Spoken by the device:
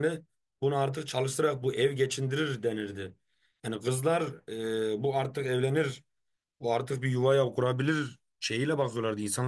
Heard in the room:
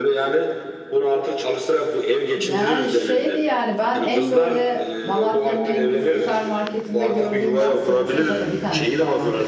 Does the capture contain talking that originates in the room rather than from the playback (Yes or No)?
Yes